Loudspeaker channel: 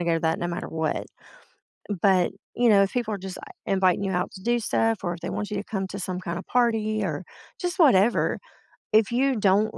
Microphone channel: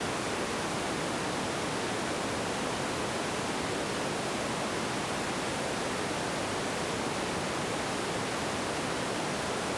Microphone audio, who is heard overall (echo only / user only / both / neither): neither